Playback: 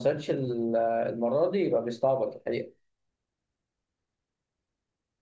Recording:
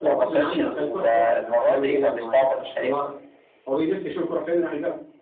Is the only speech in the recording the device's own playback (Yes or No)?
No